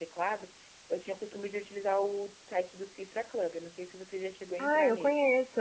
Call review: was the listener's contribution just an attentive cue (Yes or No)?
No